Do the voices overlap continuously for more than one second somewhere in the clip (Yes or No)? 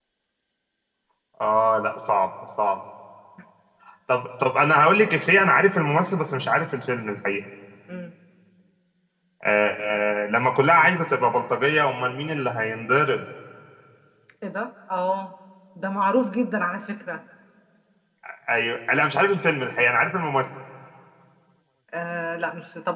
No